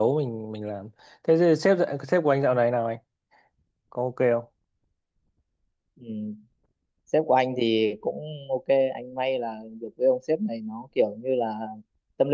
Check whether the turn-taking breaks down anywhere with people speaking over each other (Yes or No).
No